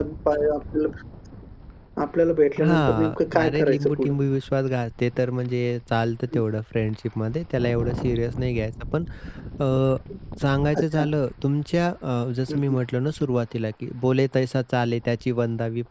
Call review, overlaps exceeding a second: present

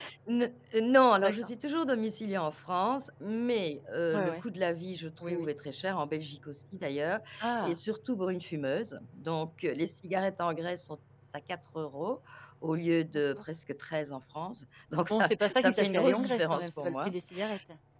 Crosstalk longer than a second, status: present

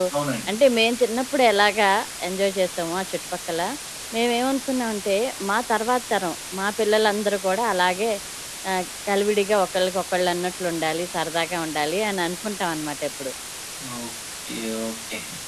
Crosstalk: none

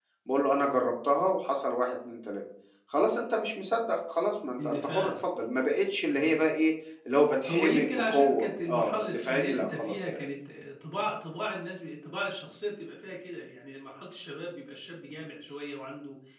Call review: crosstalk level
present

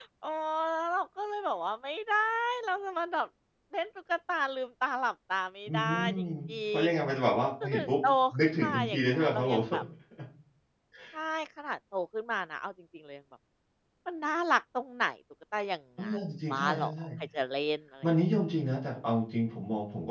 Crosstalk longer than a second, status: present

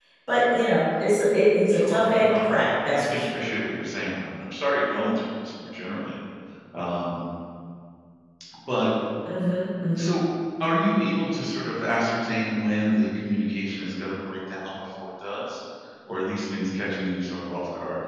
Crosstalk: present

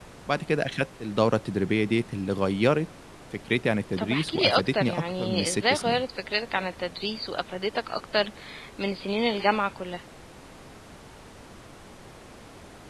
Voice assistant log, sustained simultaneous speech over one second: present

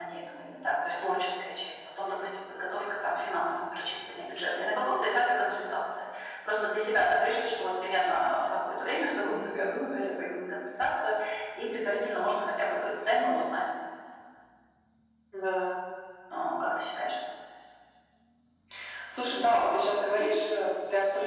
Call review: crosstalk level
none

